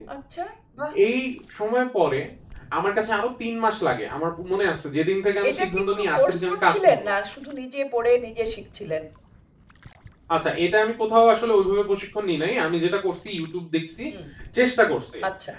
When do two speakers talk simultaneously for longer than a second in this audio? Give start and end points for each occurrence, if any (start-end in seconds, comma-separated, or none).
5.5-7.0